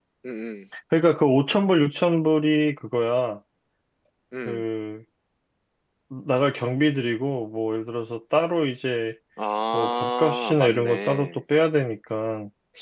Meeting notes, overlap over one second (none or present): present